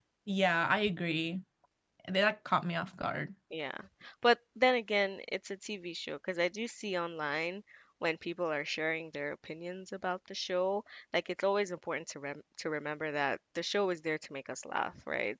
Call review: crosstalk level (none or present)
none